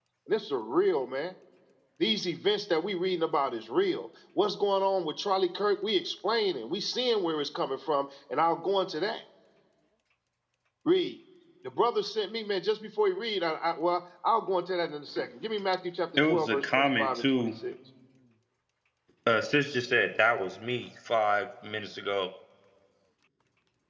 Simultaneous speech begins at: 16.2 s

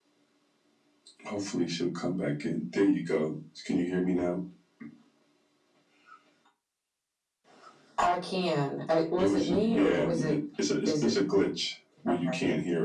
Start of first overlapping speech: 9.2 s

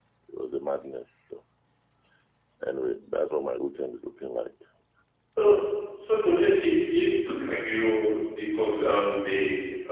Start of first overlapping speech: none

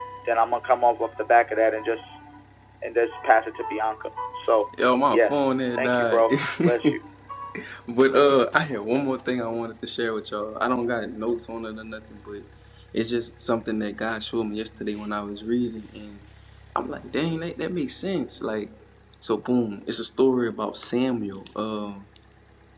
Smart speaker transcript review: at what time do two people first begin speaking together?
5.1 s

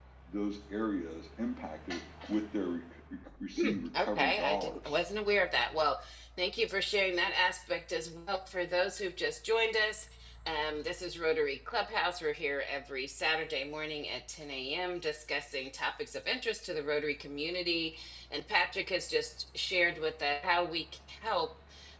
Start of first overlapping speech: 3.6 s

